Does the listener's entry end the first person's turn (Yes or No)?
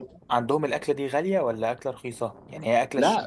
Yes